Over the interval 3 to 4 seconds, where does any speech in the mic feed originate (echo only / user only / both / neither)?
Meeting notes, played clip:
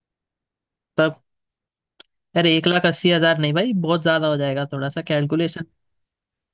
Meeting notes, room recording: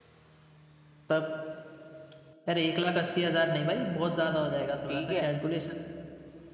echo only